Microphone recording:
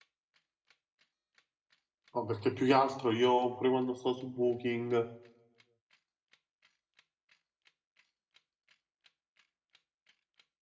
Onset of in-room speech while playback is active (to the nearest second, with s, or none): 2 s